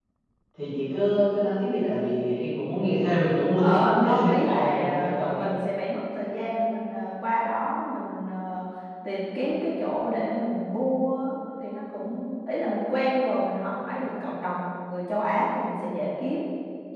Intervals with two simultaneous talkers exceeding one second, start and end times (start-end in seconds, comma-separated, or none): 3.6-5.5